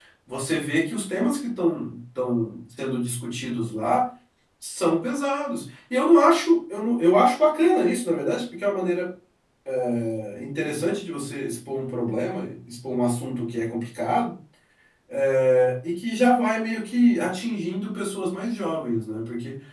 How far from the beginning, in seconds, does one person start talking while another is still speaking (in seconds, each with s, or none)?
none